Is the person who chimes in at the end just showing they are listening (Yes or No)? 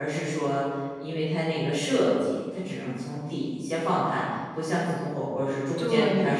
No